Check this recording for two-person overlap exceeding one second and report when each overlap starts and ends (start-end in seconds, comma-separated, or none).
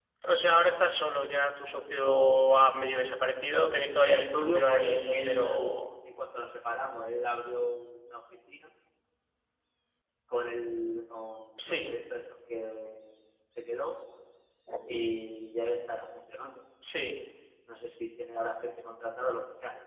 4.0-5.8